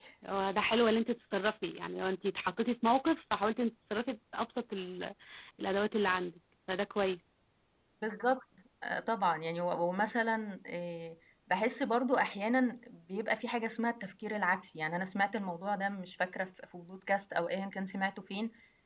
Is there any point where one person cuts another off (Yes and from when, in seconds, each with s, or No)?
No